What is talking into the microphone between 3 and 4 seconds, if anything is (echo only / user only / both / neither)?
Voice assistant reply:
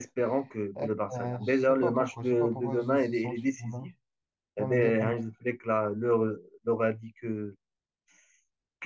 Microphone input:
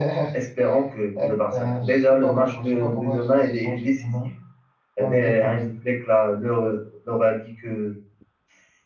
echo only